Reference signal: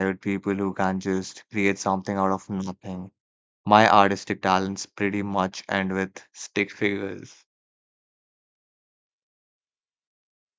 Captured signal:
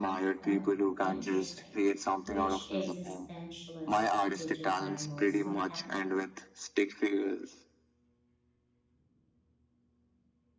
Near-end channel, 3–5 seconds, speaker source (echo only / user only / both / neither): both